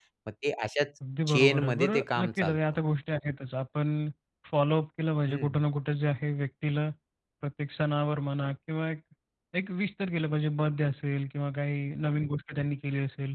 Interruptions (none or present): present